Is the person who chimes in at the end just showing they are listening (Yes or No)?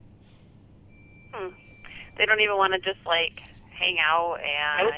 No